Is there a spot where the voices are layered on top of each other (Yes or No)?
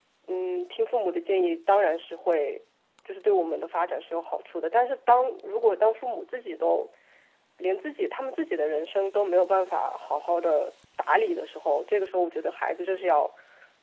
No